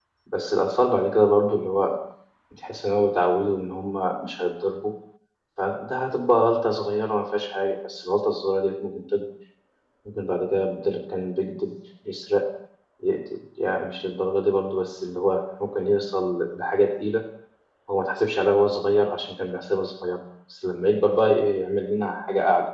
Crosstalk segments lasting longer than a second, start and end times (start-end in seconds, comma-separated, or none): none